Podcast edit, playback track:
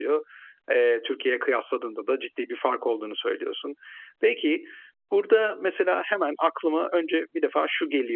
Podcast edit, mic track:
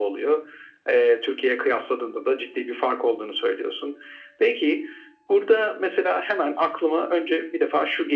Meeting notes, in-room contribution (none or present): none